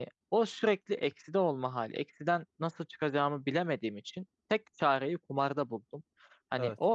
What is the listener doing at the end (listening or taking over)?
listening